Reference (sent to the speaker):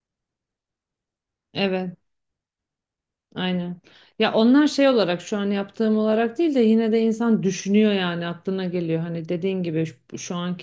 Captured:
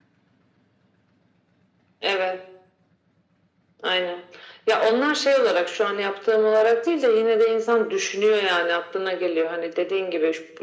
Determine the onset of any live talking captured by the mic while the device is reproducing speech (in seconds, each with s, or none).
none